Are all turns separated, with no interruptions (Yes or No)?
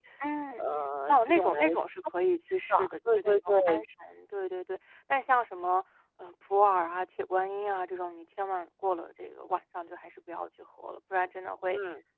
No